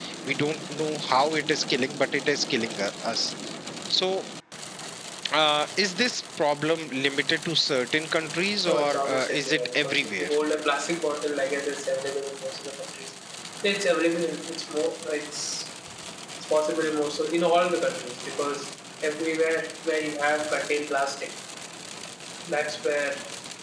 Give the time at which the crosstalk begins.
8.7 s

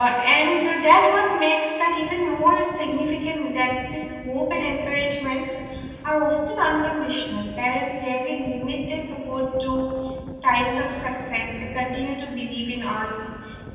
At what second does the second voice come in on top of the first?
none

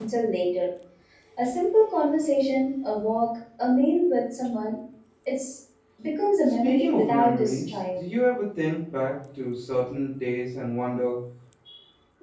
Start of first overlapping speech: 6.6 s

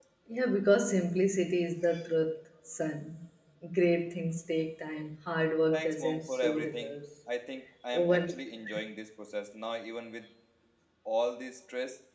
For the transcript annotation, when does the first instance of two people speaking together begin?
5.7 s

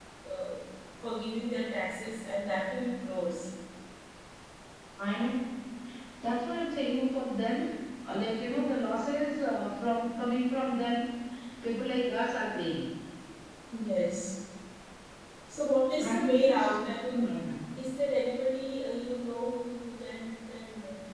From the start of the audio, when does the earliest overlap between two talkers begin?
16.0 s

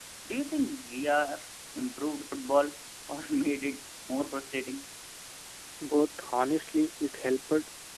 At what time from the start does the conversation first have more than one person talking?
none

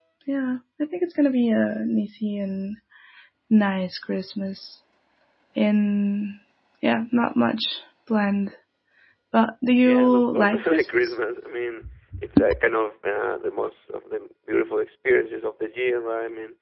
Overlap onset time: 9.8 s

